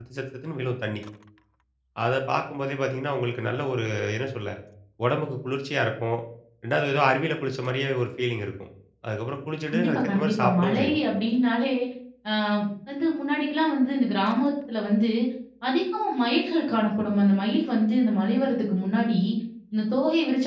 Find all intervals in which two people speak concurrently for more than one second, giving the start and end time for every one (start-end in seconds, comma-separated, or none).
9.7-11.0